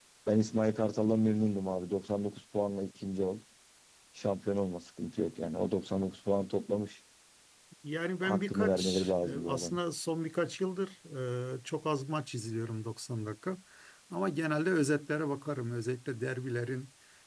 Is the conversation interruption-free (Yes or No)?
No